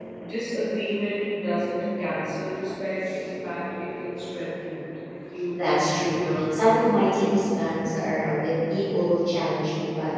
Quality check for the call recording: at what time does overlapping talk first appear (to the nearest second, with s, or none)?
6 s